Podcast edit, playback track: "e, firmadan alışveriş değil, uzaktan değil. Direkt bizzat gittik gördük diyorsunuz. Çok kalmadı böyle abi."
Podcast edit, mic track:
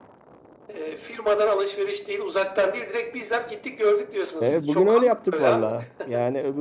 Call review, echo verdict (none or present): present